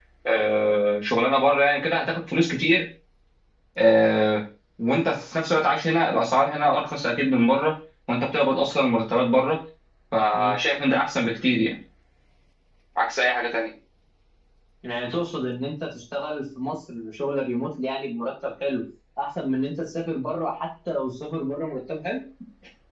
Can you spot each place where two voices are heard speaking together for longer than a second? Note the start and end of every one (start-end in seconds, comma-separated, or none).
none